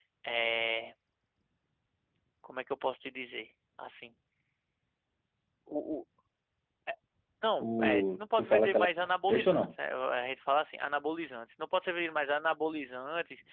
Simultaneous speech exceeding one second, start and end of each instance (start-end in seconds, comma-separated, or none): 7.6-8.9